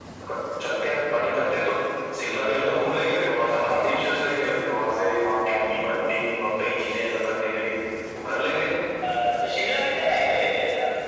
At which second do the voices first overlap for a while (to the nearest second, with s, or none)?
none